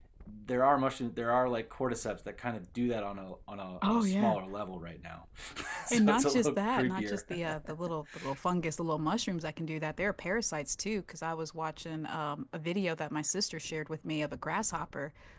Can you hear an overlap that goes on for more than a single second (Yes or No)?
Yes